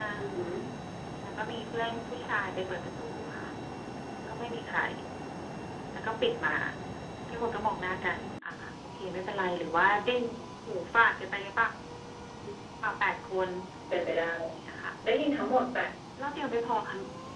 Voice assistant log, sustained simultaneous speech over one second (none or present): none